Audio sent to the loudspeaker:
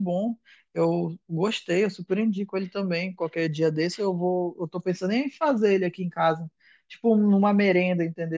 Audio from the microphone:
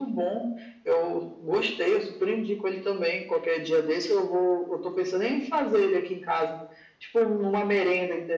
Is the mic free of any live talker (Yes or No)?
Yes